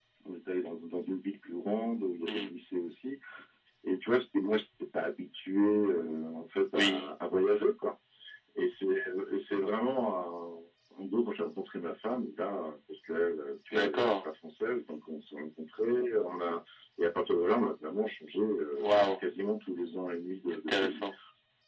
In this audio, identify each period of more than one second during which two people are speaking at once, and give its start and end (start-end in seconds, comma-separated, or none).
none